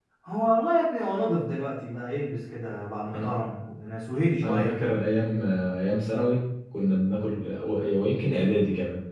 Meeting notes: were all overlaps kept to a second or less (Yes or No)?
Yes